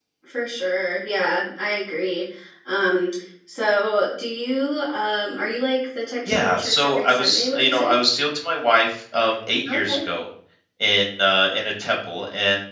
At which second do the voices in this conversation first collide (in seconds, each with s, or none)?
6.2 s